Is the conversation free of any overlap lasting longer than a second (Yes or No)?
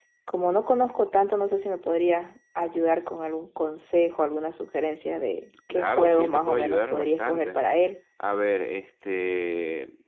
No